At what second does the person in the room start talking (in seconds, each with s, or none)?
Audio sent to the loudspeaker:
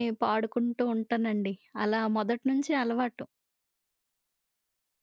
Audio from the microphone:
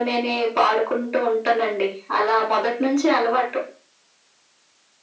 none